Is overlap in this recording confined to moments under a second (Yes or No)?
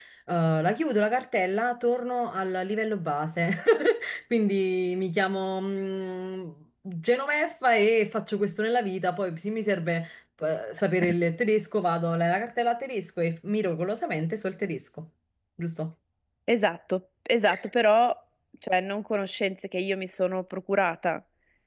Yes